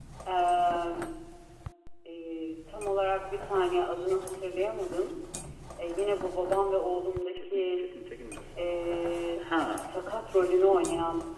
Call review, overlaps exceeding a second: none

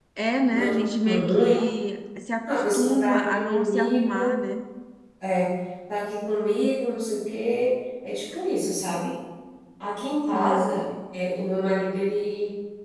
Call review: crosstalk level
present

